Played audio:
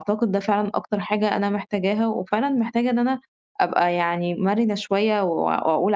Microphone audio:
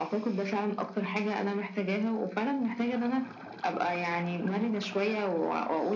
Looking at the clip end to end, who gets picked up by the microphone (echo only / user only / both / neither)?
echo only